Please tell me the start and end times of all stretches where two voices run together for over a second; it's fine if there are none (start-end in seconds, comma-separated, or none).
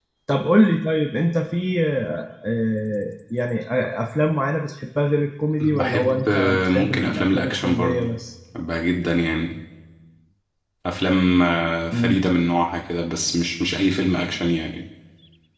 5.6-8.1